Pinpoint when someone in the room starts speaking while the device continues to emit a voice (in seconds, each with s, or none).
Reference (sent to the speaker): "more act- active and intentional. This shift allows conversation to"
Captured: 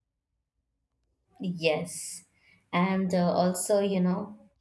1.4 s